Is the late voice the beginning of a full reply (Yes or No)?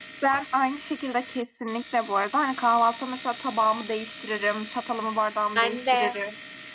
No